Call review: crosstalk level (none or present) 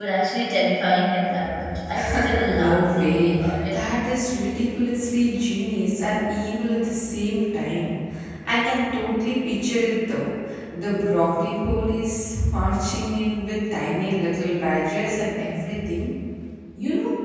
present